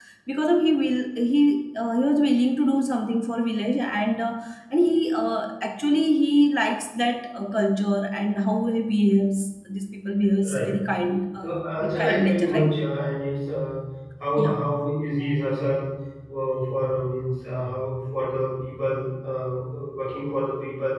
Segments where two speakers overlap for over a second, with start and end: 11.4-12.8

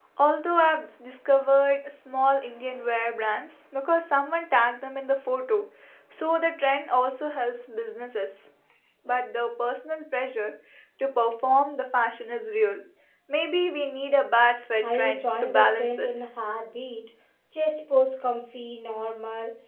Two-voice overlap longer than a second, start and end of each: 14.8-16.1

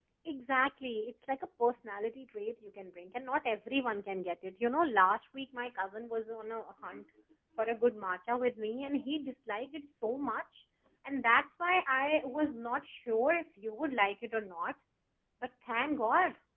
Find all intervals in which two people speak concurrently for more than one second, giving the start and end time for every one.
none

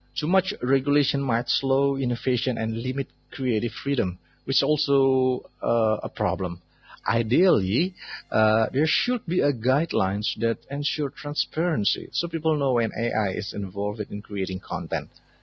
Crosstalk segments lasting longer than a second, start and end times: none

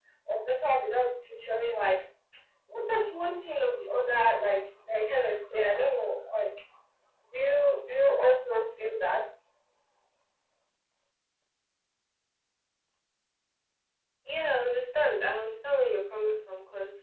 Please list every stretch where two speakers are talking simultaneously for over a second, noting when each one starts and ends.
none

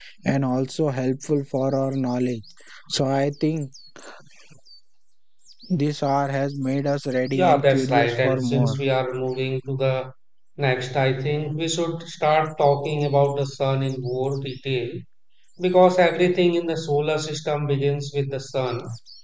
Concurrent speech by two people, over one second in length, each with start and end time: 7.3-8.8

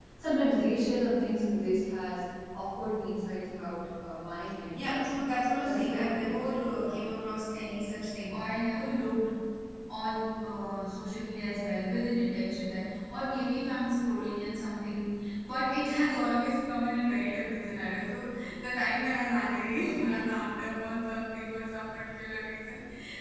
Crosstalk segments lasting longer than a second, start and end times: 5.6-6.9

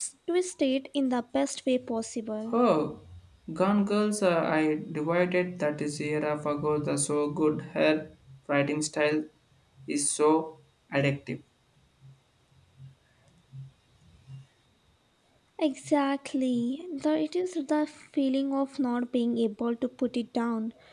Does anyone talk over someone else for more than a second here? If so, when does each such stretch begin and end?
none

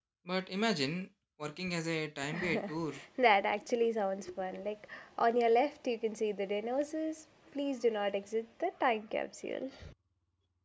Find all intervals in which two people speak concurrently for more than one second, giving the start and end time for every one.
none

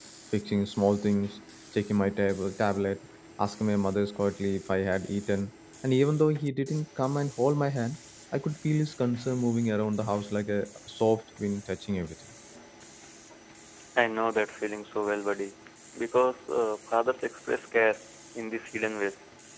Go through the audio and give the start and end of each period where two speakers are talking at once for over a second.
none

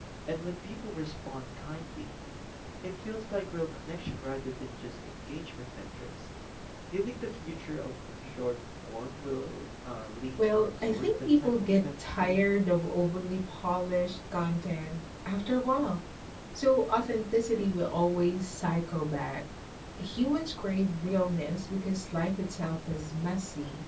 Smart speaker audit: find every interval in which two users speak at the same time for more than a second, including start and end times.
10.4-12.4

